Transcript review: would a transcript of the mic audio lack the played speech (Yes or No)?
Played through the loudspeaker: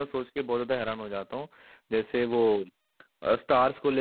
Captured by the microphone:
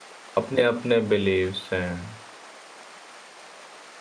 Yes